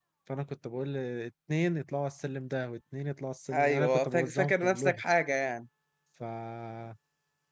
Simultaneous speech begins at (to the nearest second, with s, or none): 4 s